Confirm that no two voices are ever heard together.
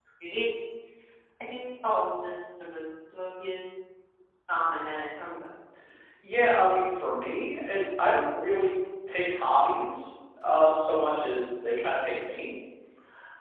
Yes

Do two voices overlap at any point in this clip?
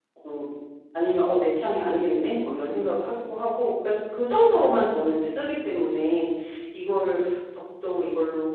No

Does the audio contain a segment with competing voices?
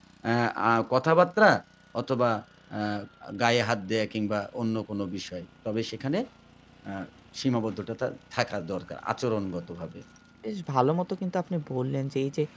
No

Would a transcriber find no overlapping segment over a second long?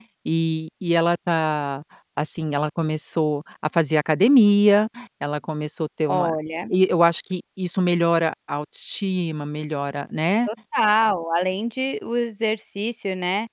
Yes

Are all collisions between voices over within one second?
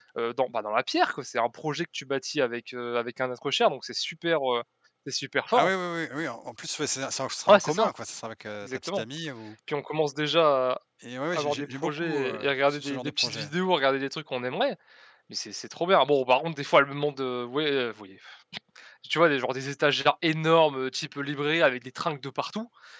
No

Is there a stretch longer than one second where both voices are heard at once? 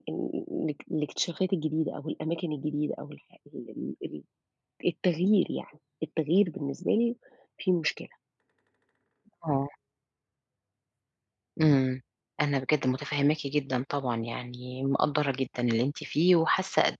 No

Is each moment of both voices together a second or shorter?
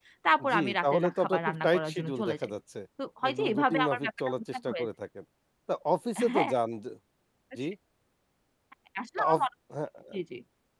No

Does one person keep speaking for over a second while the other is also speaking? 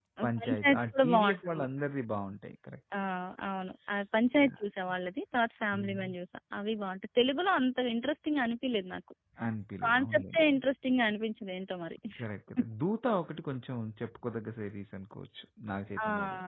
Yes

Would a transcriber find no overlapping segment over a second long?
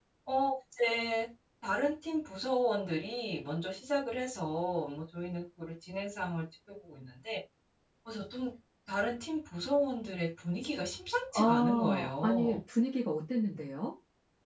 No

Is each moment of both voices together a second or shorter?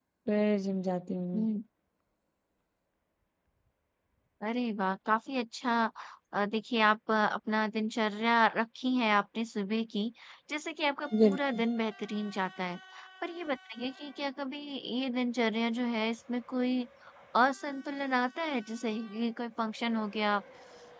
Yes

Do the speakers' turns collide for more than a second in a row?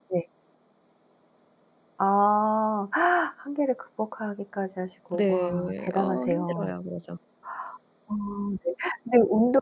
Yes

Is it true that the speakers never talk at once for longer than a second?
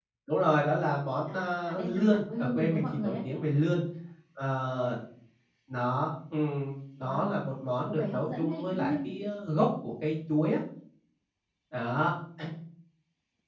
No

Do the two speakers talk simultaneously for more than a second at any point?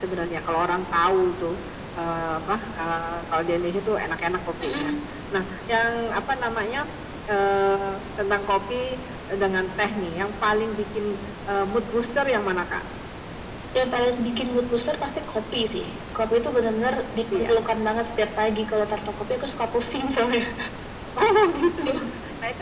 No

